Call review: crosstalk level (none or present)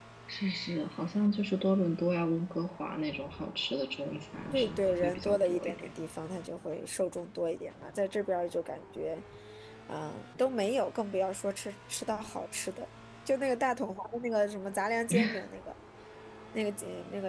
present